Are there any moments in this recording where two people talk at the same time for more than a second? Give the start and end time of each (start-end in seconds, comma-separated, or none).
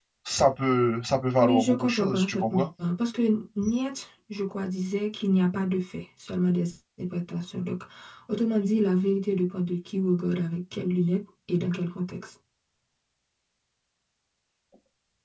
1.4-2.6